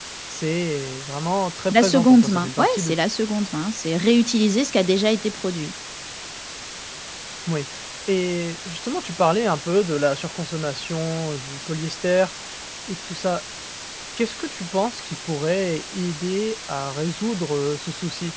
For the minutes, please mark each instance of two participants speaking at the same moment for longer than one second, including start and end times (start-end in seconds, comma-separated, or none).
1.7-2.9